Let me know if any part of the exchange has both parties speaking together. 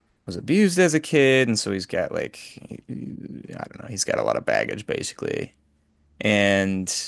No

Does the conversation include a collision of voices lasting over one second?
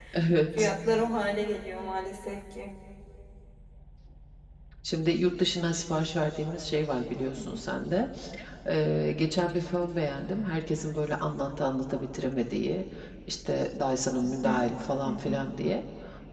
No

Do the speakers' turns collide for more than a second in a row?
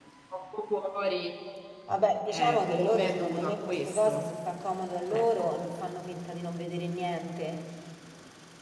Yes, from 2.3 s

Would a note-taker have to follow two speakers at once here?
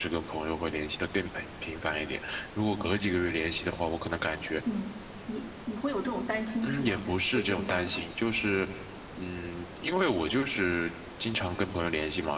Yes, from 6.6 s

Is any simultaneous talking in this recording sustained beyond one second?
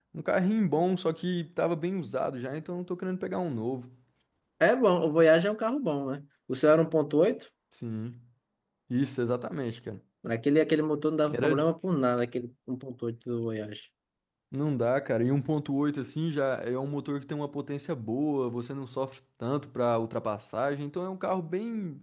No

